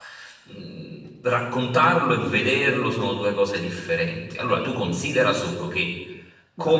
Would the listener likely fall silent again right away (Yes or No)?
Yes